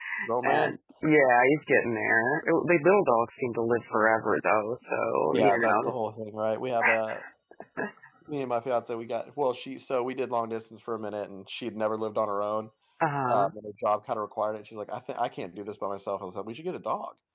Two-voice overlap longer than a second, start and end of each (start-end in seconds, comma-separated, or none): none